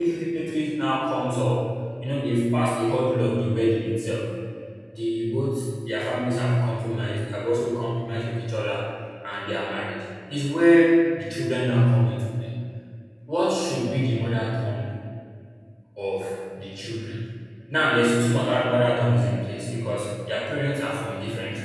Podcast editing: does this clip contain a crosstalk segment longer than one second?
No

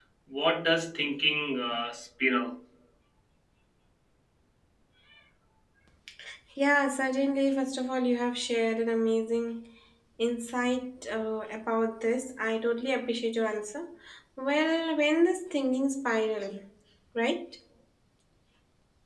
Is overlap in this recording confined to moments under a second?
Yes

